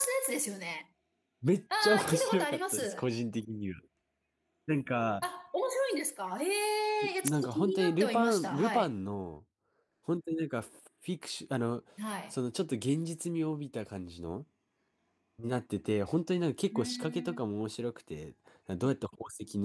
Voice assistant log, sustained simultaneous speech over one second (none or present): present